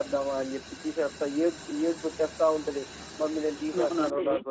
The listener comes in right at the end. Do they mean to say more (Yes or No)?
Yes